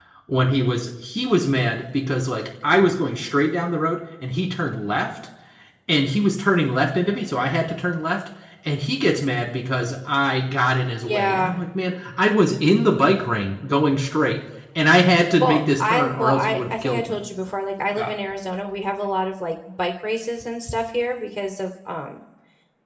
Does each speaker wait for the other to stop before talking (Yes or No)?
No